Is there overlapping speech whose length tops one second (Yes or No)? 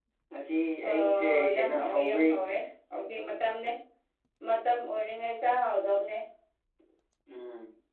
Yes